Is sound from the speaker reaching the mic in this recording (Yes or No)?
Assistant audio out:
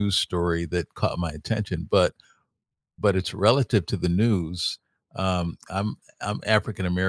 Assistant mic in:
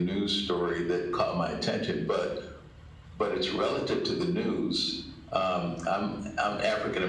Yes